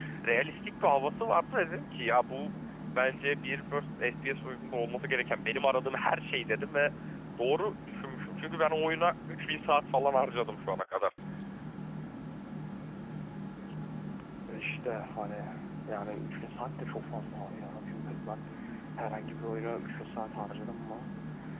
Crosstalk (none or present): none